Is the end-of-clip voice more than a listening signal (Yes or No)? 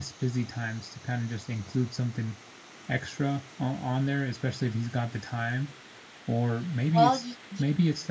No